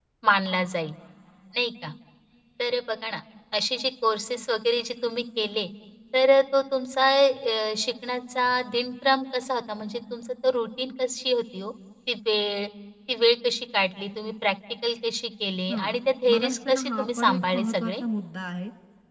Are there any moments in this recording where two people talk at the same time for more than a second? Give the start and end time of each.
16.3-18.0

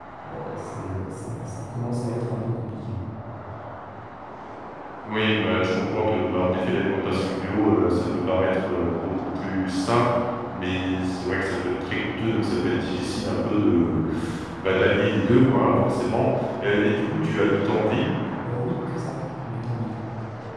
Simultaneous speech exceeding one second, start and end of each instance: none

